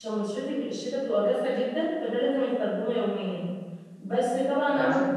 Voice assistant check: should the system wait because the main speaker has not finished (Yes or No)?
Yes